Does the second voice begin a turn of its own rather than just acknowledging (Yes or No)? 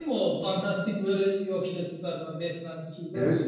Yes